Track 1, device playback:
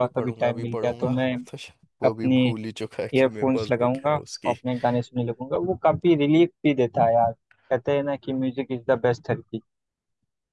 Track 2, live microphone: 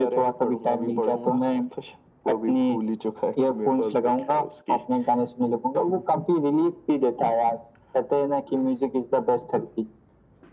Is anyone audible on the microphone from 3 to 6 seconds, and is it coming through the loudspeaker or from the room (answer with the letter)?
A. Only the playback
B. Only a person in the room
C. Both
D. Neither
A